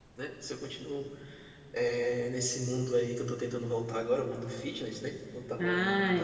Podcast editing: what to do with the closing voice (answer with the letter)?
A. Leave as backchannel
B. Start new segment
B